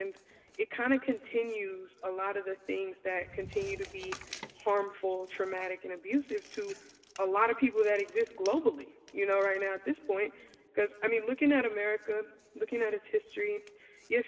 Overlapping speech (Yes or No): No